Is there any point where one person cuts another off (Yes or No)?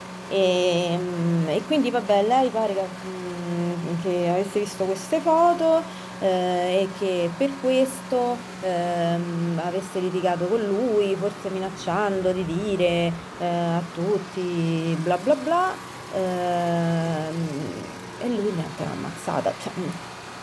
No